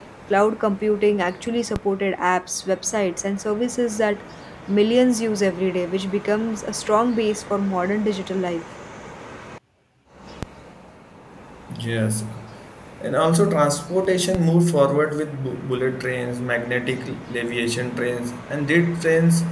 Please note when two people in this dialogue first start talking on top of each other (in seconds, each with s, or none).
none